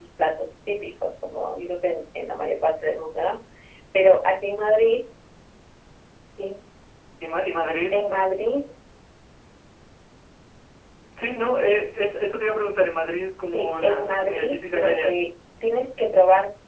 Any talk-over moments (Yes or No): Yes